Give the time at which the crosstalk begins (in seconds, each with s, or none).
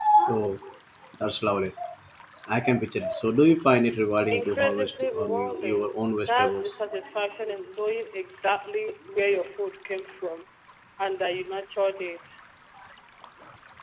4.3 s